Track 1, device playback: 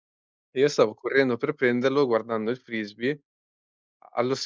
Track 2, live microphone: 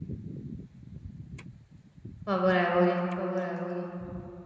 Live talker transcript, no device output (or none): Favorevoli, favorevoli.